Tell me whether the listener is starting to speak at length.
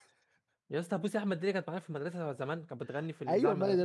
Yes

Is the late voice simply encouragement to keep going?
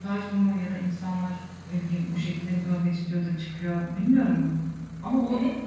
No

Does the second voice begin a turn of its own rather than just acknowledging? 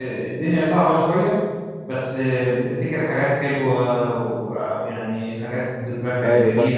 No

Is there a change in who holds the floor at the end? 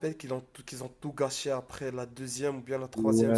Yes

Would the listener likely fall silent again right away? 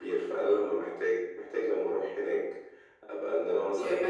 No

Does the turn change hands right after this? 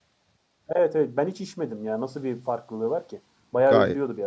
Yes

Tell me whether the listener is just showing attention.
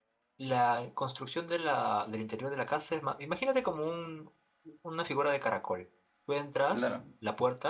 Yes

